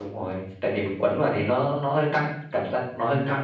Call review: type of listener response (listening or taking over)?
taking over